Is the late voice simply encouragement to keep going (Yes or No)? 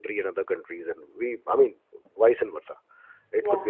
Yes